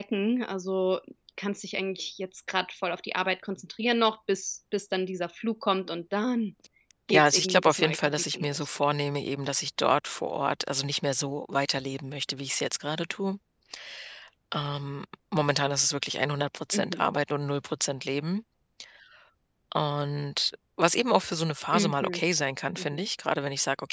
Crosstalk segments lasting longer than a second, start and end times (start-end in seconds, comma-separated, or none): 7.1-8.7